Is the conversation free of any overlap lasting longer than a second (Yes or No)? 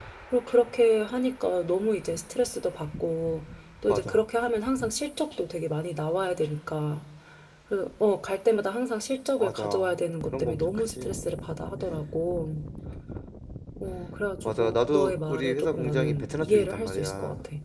No